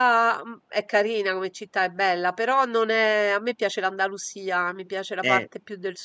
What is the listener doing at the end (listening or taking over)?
listening